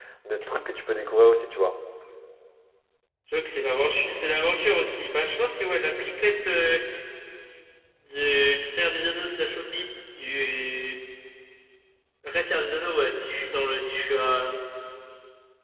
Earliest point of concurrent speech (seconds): none

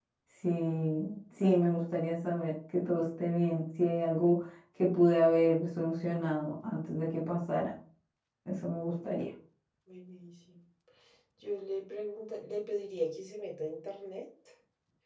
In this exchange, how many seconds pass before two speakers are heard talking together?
none

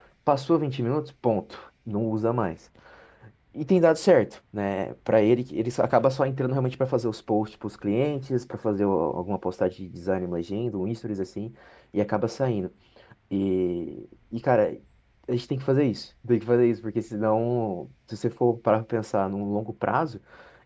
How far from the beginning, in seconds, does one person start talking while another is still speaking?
none

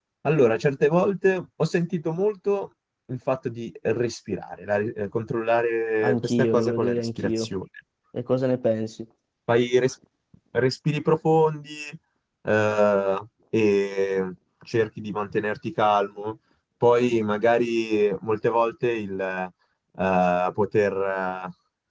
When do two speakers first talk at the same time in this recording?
6.0 s

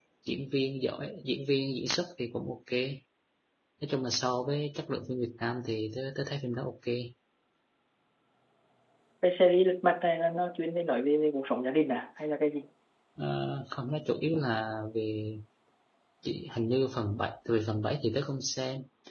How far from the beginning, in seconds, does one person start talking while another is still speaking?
none

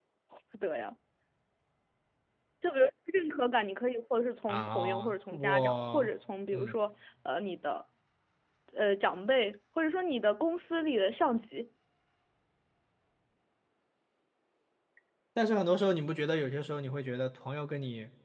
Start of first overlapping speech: 4.5 s

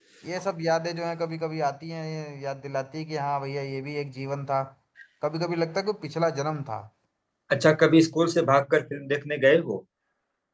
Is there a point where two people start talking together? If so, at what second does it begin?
none

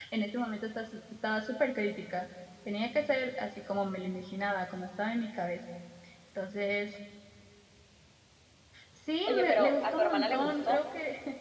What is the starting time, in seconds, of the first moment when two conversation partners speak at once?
9.3 s

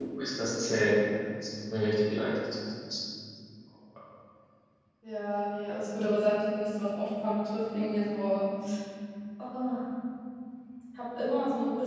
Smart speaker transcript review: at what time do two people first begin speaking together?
none

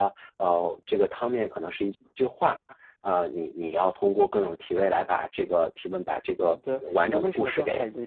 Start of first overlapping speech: 6.4 s

